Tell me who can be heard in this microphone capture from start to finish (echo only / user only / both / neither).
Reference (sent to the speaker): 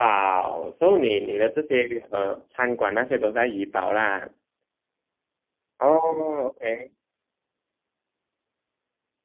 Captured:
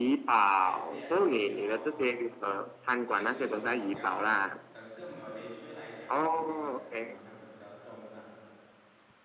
both